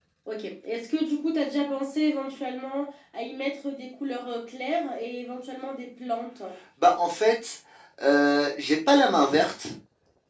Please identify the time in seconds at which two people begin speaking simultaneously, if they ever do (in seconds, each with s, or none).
none